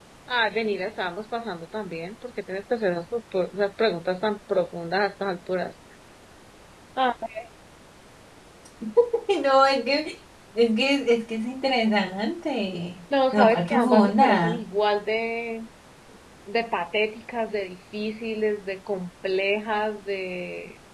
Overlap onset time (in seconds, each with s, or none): 13.1 s